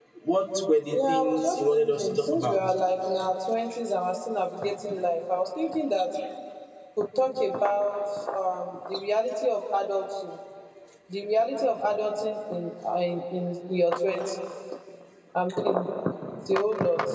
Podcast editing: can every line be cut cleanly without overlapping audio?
No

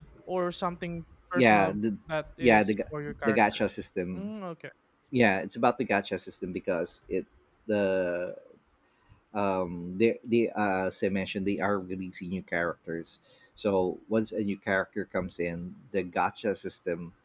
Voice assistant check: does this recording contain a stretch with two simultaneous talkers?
Yes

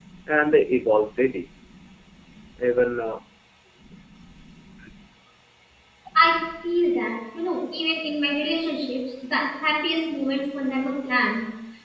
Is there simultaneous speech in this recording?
No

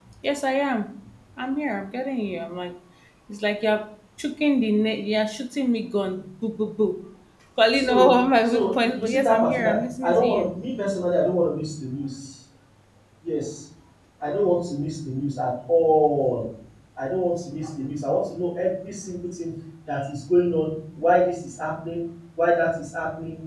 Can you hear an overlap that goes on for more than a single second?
Yes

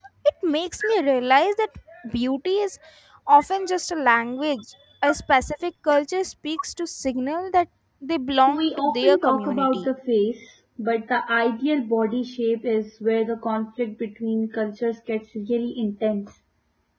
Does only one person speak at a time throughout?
No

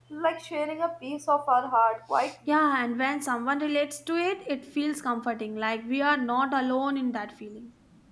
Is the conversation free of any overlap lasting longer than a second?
Yes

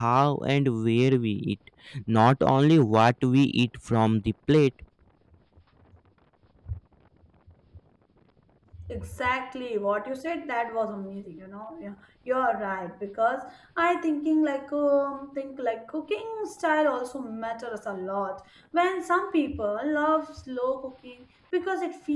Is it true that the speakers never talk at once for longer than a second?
Yes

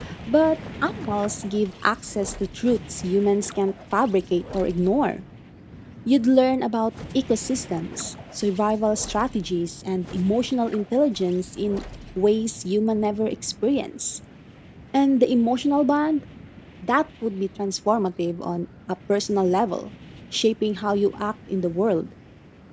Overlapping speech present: No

